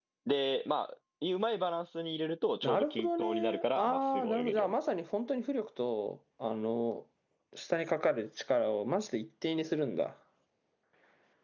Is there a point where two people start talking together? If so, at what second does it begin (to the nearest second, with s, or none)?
3 s